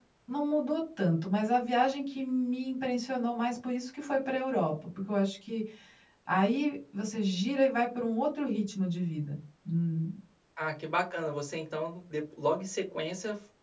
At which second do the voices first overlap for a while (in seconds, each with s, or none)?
none